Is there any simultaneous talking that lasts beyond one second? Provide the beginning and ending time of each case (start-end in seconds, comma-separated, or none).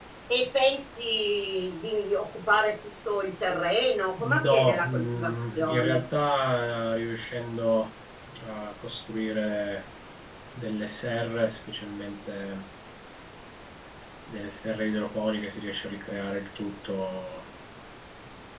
4.4-6.0